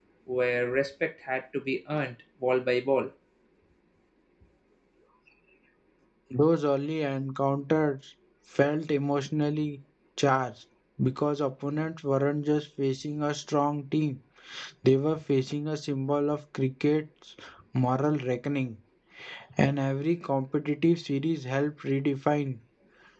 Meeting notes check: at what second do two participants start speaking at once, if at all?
none

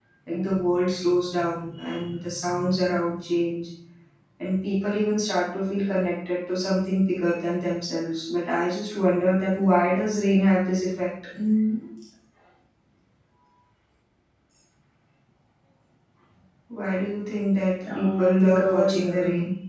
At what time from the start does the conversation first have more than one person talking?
17.8 s

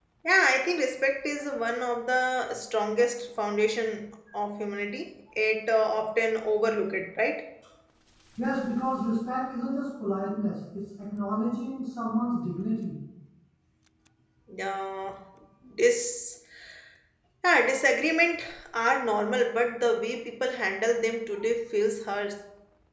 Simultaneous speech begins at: none

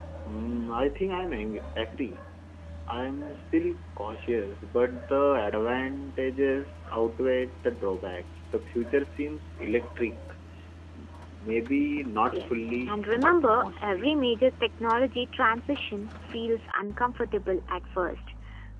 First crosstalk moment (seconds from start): 12.3 s

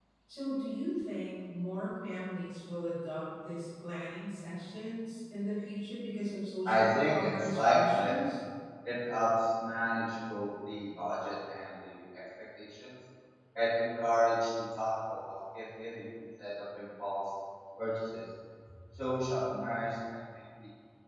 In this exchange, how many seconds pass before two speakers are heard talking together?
6.7 s

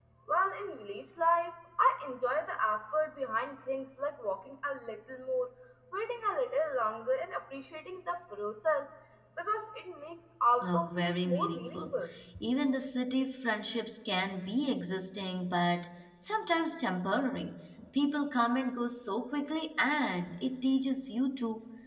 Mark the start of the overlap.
10.6 s

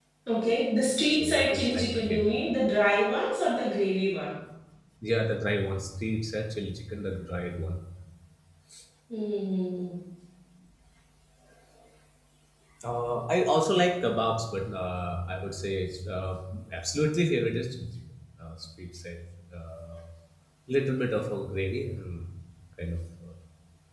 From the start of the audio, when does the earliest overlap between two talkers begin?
1.1 s

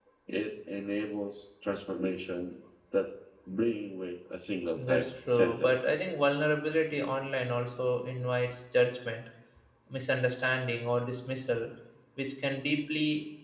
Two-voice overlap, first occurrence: 4.7 s

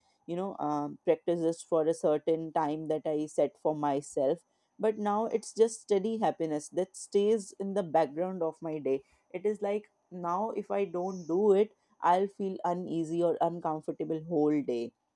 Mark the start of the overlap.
none

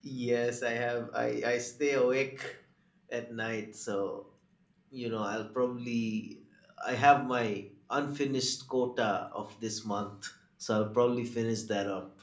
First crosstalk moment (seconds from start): none

